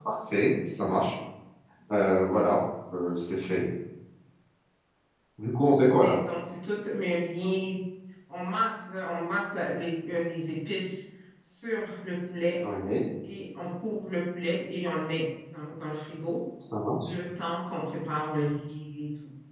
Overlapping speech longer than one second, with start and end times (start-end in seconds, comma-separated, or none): none